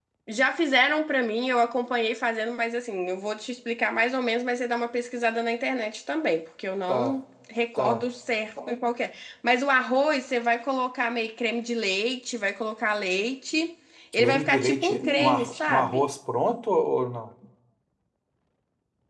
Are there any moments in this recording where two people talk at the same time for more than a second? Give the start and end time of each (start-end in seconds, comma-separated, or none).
14.1-16.1